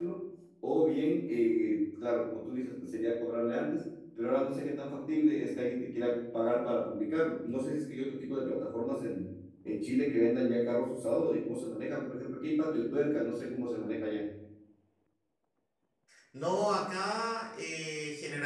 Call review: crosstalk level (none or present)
none